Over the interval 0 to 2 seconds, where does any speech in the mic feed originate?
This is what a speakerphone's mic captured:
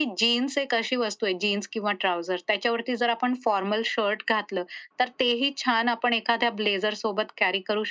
echo only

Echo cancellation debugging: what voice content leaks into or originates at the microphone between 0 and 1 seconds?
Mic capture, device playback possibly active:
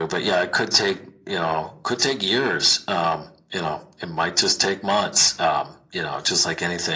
echo only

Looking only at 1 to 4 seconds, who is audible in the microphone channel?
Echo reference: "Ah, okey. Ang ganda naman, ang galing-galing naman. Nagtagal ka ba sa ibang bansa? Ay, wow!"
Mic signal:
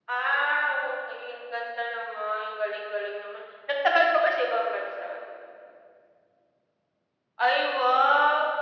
echo only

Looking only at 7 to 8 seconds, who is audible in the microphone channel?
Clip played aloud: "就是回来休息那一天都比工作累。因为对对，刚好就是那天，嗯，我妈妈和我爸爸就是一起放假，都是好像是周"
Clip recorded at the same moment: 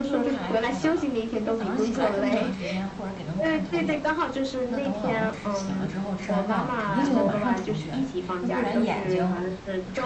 both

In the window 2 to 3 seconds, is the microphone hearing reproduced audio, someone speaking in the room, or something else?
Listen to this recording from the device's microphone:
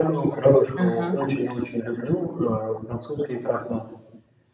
echo only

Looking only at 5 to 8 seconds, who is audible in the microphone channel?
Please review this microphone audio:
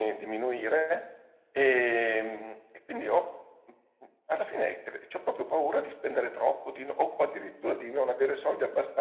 echo only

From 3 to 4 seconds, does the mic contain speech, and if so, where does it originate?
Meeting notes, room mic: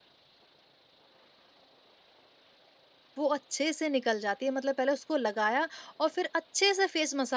user only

